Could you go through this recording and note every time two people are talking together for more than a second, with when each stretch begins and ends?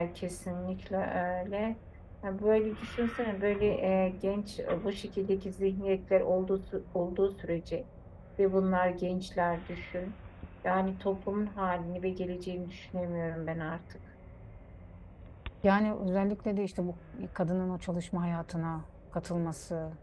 none

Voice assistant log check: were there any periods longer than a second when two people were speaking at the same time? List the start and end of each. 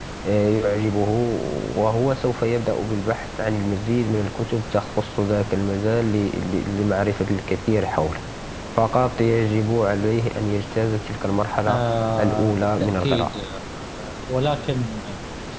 12.2-13.4

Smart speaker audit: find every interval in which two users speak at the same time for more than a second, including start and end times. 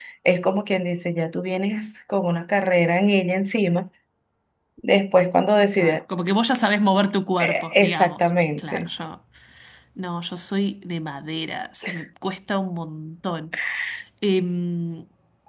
7.4-8.9

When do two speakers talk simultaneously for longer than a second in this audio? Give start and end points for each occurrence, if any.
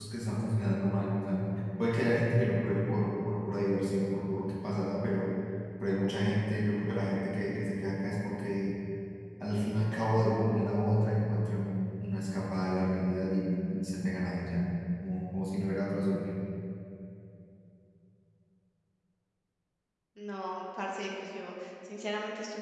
none

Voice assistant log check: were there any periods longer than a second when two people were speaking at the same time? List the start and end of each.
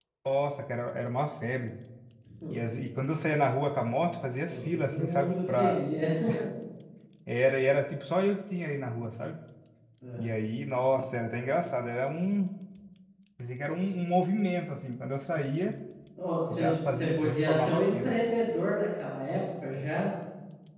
4.5-5.8, 16.5-18.2

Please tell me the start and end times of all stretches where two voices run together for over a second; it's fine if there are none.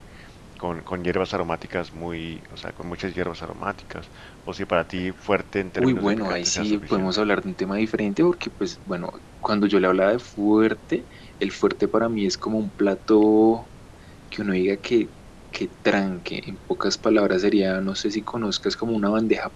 5.8-7.1

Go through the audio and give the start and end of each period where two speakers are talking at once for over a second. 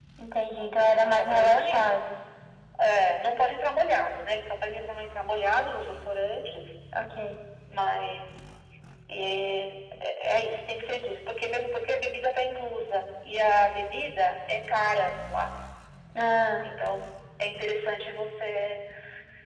0.5-1.9

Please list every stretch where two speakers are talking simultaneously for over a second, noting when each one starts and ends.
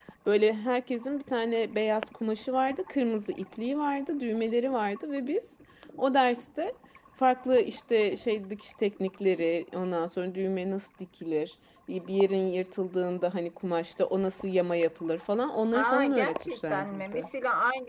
15.7-17.3

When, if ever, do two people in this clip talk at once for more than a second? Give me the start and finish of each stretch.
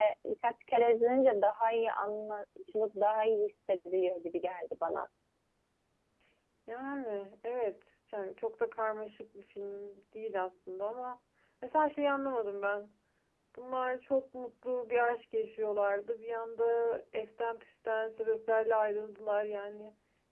none

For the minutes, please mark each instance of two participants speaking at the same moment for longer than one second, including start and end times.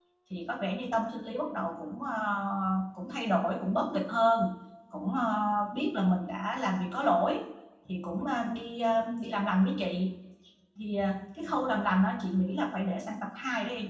none

